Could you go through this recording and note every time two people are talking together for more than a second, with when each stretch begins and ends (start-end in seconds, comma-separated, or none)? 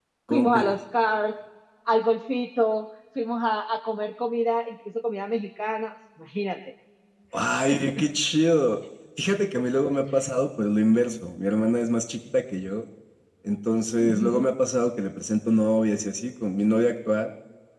none